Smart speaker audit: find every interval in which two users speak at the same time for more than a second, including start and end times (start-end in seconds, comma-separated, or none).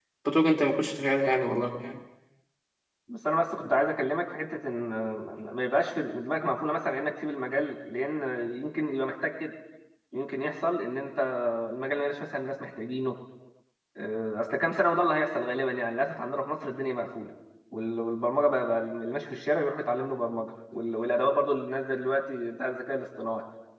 none